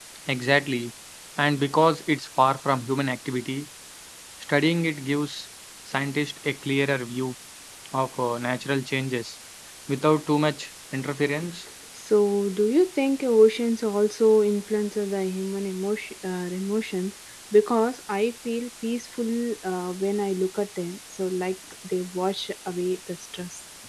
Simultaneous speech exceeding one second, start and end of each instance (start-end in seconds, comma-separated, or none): none